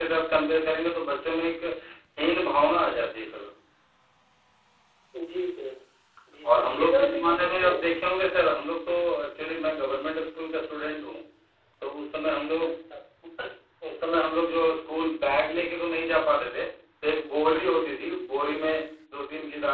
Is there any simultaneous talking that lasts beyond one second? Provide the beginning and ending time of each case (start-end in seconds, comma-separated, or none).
6.6-7.8